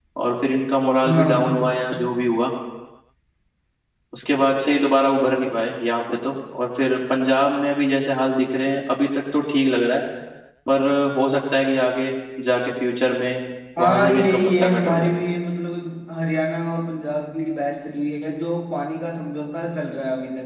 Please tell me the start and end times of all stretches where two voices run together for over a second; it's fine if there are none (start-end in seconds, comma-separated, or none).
13.8-15.1